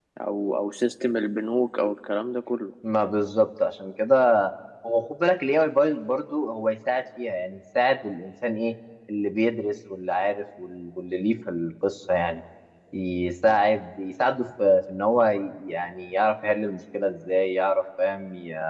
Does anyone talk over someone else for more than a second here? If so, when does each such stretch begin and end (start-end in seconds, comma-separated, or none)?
none